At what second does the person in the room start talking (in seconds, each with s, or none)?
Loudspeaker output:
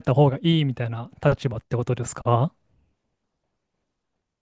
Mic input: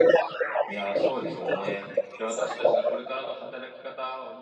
0.7 s